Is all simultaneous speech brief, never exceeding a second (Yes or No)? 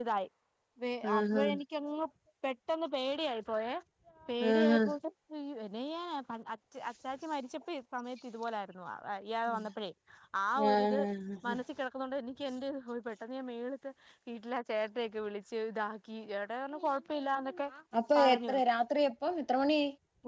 Yes